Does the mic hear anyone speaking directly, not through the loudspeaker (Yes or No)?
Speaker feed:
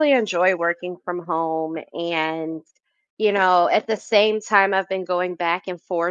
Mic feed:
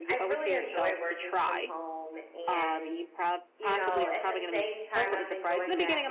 Yes